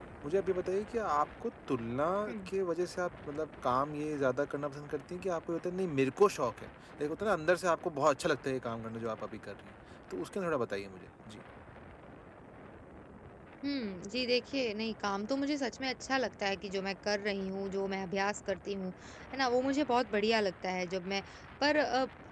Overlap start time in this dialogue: none

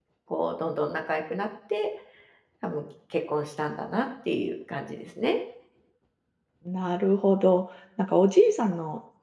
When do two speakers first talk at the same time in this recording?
none

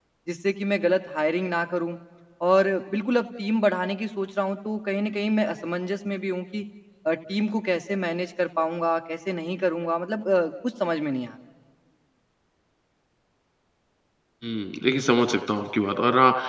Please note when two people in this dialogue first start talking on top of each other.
none

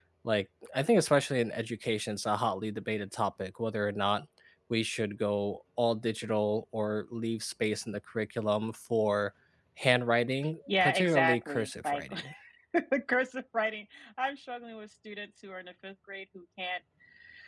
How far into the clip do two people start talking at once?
11 s

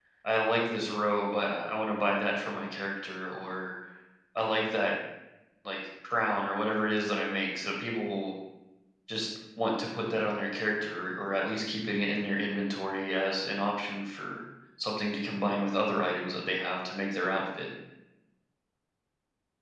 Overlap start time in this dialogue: none

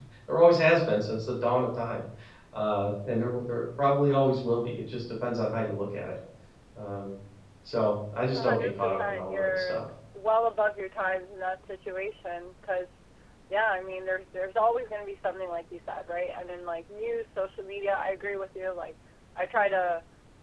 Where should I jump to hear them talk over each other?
8 s

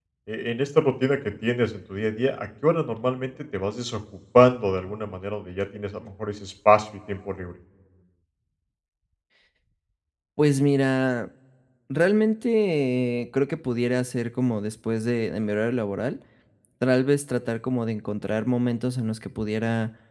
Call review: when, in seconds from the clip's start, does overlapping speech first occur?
none

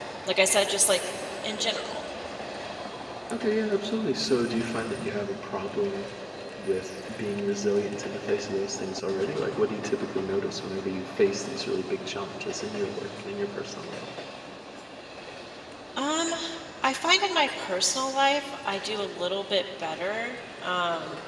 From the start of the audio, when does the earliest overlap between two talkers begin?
none

